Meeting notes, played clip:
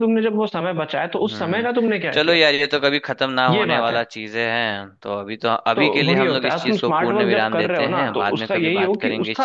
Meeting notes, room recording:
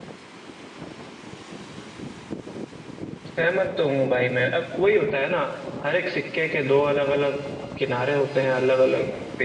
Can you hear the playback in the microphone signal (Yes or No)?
No